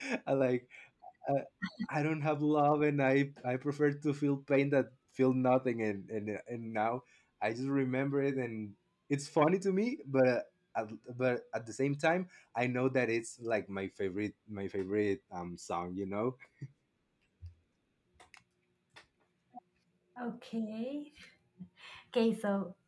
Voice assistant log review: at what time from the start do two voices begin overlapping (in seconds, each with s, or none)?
none